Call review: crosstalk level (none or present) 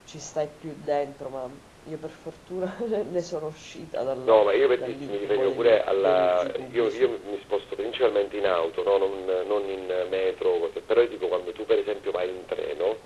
present